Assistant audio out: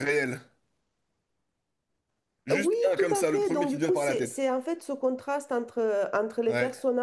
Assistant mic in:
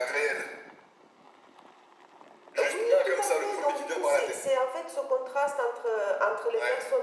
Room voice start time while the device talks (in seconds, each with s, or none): none